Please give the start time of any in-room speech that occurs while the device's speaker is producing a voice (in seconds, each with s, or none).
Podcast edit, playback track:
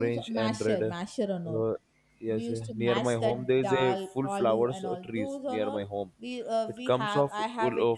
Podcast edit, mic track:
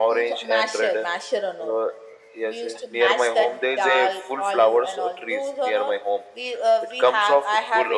none